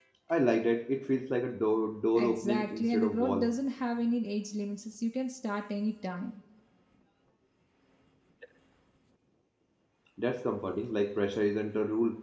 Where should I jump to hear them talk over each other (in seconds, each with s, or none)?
2.1 s